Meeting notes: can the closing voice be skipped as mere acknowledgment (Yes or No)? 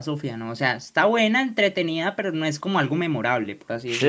No